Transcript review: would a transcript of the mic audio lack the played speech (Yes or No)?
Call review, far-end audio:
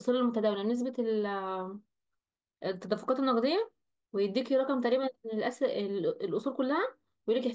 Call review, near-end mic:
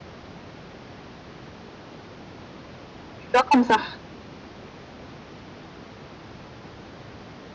Yes